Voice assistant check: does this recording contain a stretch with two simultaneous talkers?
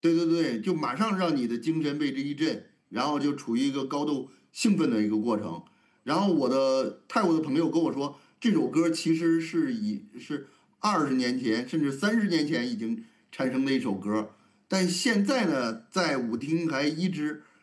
No

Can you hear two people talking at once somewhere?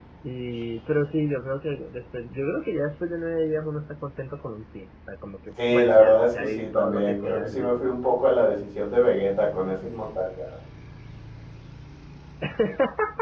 Yes, from 5.6 s

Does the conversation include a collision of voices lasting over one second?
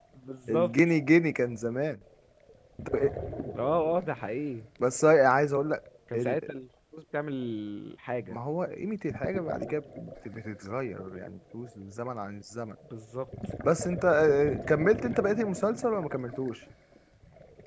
No

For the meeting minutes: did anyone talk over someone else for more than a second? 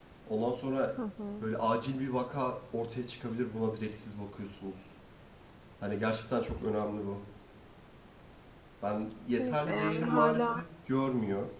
Yes, from 9.4 s

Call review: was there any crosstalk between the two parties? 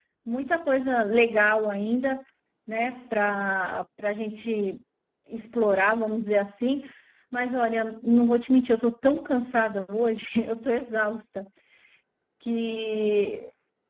No

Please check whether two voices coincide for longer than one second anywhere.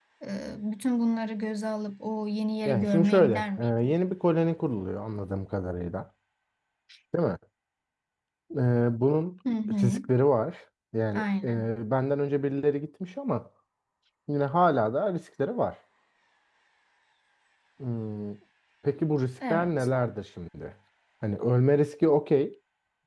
Yes, from 2.6 s

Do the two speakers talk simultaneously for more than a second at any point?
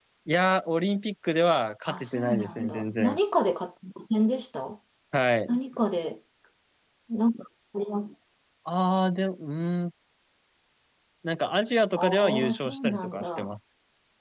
Yes, from 1.8 s

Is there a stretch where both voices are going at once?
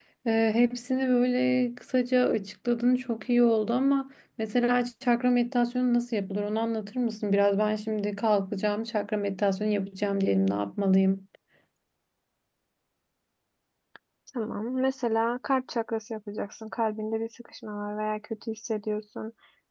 No

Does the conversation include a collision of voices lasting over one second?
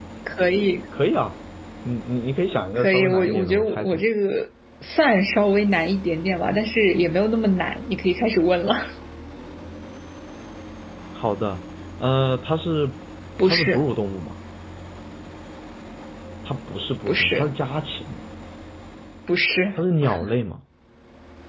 Yes, from 2.8 s

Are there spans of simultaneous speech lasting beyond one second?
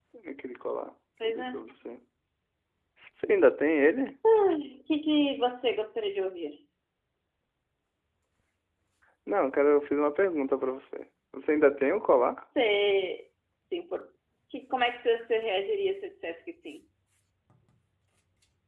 No

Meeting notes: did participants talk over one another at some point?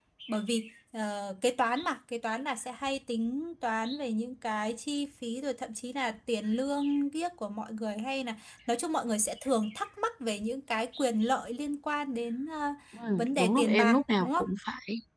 Yes, from 13.2 s

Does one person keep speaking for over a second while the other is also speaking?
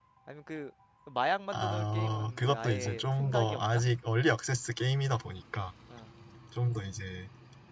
Yes, from 1.5 s

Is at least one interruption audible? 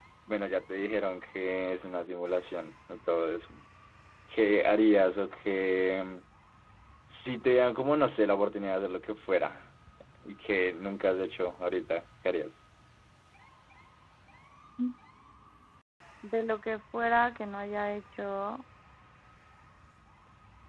No

